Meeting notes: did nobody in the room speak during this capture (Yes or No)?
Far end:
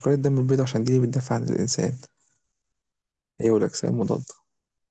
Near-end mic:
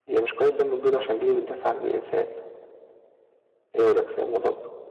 Yes